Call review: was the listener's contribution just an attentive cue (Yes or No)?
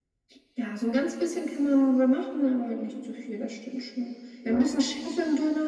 Yes